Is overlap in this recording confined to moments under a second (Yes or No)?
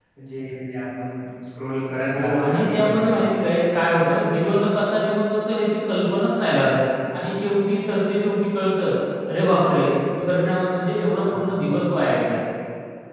No